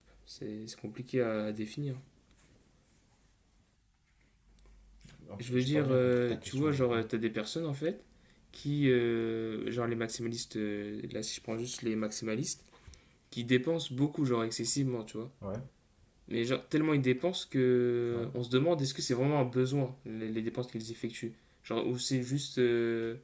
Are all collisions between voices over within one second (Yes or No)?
No